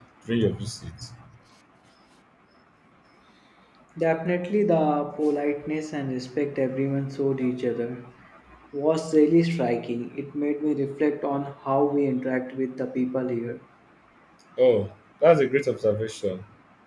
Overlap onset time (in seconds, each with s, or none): none